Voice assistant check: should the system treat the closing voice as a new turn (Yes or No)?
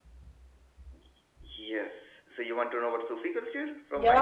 Yes